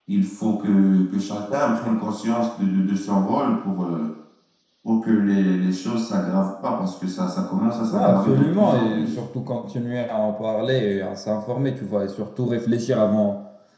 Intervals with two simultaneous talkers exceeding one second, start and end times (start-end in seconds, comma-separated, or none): 7.9-9.2